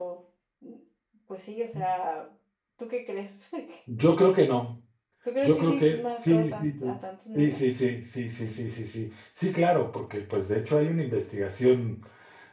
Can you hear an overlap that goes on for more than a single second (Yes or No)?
Yes